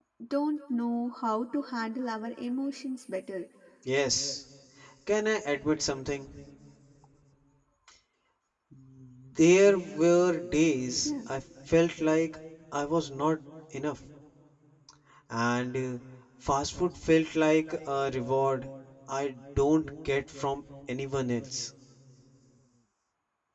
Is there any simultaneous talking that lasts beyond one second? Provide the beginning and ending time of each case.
none

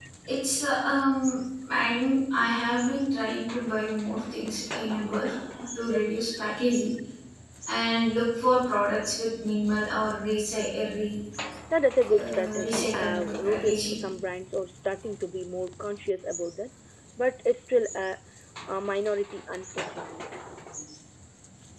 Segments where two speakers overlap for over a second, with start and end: 12.2-14.0

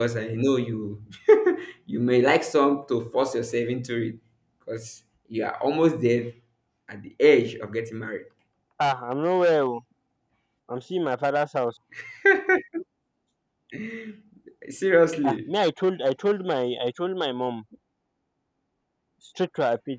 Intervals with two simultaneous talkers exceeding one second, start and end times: none

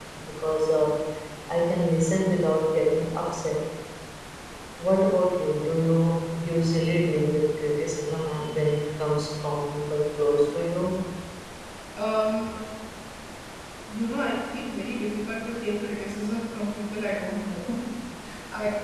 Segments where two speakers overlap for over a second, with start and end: none

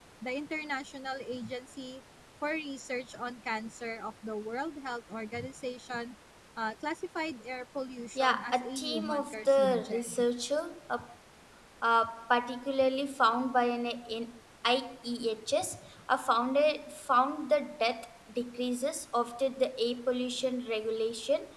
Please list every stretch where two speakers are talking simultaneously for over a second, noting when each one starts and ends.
8.2-10.2

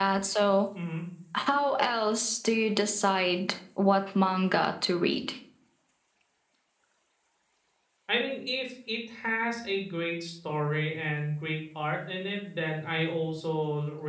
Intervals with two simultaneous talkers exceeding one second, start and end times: none

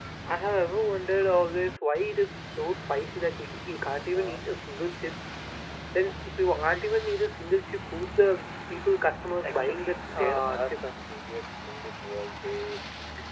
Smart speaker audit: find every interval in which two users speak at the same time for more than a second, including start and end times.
9.4-10.9

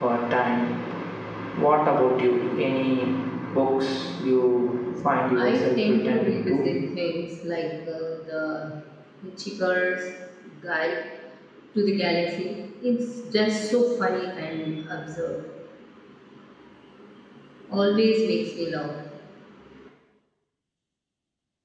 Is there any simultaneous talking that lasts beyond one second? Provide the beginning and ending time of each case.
5.3-6.6

